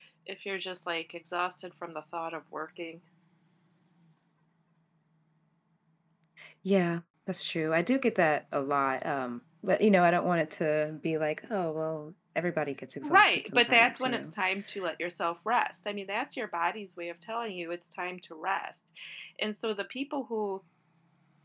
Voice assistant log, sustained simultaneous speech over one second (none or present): present